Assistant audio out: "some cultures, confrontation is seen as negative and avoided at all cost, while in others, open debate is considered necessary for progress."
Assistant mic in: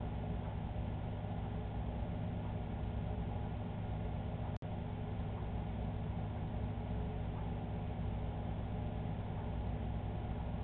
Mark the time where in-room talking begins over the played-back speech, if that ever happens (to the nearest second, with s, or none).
none